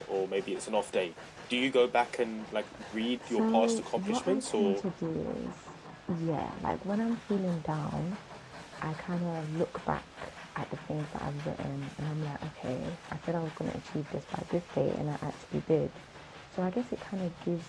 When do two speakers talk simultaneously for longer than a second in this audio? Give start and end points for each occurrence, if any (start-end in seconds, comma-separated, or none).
3.3-4.8